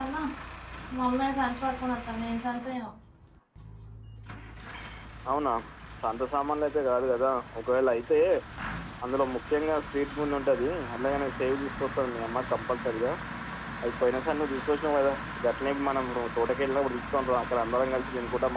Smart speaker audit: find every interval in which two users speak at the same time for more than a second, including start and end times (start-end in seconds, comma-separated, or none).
none